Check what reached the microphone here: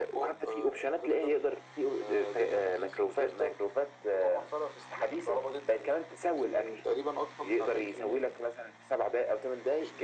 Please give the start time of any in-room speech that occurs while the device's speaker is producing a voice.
none

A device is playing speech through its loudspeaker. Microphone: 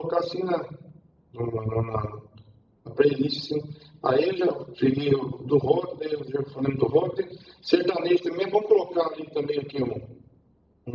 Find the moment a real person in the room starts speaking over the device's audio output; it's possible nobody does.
none

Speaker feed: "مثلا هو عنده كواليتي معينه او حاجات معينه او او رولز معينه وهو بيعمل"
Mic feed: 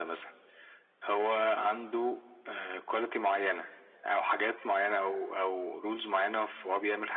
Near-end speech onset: none

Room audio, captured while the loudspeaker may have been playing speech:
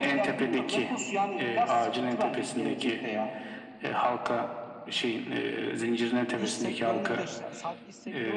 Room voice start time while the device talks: 6.4 s

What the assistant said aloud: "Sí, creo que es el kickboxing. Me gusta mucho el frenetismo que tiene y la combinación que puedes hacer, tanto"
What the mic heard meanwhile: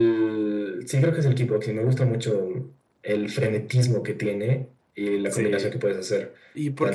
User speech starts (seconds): 5.2 s

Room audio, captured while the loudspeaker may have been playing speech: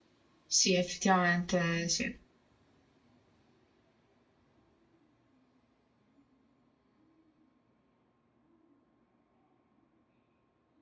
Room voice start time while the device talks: 0.5 s

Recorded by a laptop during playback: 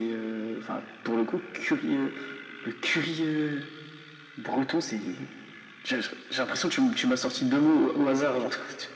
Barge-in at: none

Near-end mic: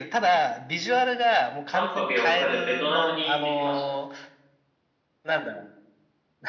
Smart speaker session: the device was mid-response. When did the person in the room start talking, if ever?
1.7 s

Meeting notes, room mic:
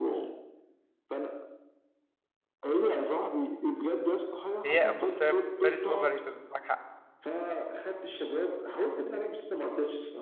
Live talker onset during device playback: 4.6 s

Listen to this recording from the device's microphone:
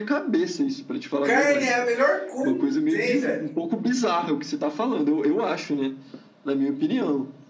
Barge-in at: 1.2 s

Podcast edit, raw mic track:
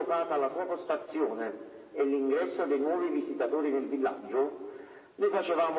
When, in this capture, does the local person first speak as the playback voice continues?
none

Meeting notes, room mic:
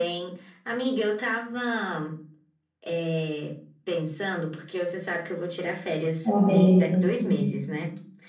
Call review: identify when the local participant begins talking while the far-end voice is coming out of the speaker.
6.2 s

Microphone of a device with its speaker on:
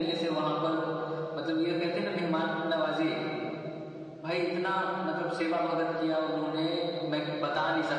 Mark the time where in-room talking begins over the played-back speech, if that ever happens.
none

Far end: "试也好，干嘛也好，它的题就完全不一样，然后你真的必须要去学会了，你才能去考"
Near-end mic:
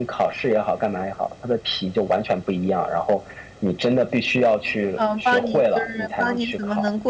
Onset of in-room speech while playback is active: 4.9 s

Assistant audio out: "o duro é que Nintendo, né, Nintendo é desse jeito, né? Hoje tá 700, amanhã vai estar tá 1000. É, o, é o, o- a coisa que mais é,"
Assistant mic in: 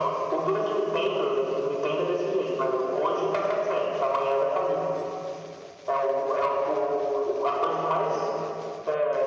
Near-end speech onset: none

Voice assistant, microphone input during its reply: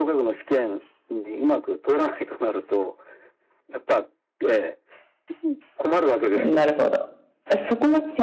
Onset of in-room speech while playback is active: 6.1 s

